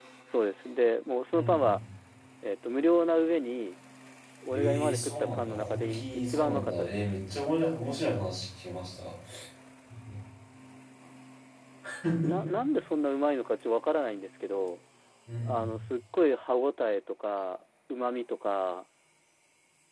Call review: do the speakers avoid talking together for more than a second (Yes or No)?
No